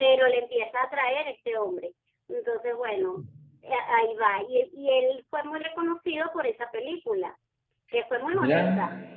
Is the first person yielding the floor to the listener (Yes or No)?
No